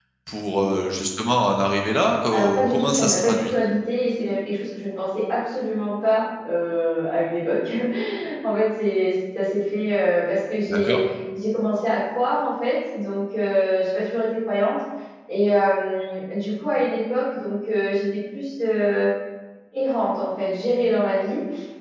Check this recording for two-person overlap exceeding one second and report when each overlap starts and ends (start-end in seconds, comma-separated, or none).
2.3-3.5